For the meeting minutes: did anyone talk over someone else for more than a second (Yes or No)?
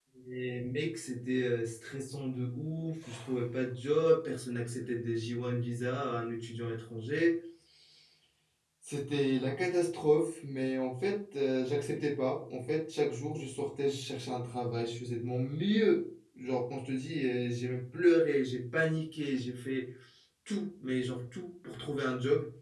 No